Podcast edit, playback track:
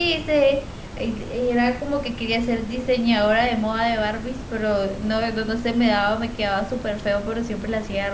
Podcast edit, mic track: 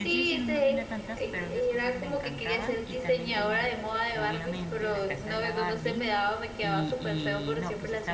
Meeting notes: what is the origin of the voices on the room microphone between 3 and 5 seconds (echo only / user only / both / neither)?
both